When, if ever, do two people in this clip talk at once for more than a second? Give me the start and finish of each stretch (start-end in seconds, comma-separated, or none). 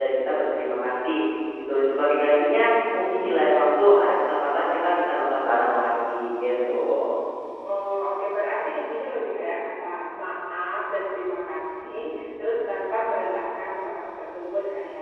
none